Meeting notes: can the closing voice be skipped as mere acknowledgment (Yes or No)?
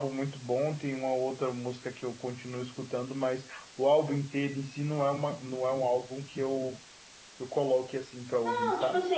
No